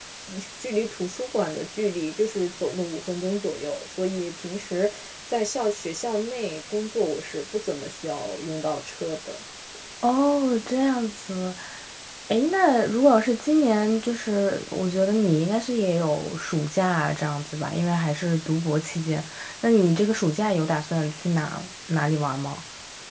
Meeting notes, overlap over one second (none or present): none